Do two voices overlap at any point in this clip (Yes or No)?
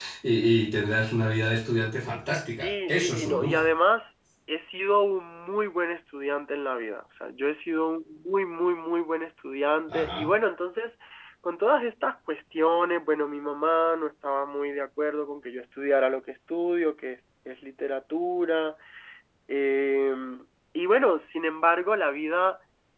Yes